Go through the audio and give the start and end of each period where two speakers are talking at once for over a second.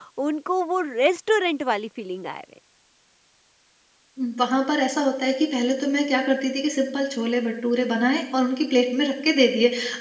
none

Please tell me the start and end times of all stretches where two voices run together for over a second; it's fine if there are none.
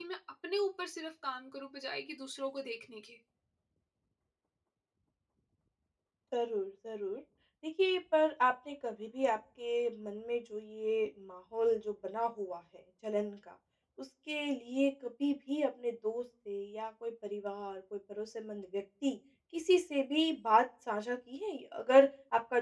none

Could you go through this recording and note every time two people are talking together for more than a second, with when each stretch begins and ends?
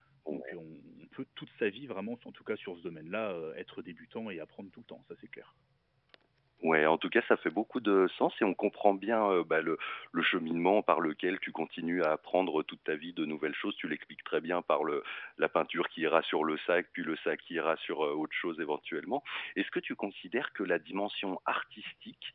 none

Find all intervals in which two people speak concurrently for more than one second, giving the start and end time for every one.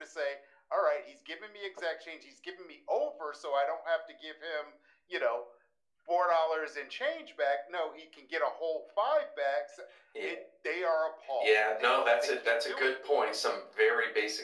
11.4-12.9

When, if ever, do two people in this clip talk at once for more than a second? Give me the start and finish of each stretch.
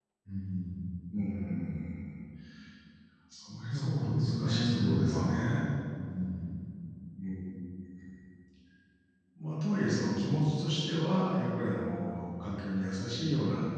3.7-5.3

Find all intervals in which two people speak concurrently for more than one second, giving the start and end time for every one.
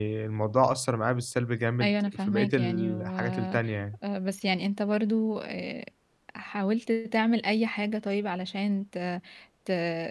1.8-3.6

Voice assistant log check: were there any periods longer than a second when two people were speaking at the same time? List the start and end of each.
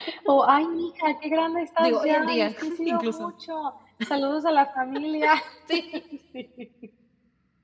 1.8-3.3

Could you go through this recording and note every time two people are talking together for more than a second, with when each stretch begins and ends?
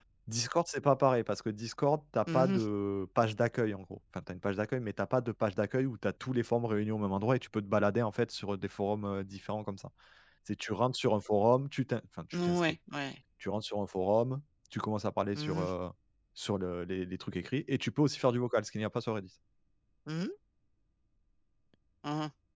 none

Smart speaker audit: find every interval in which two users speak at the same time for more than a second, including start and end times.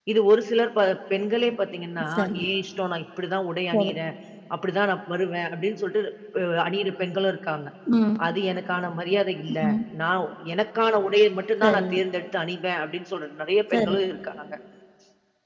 none

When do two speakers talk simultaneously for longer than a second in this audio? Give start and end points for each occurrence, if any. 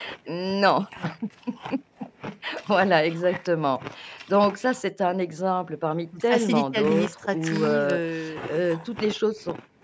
6.3-8.0

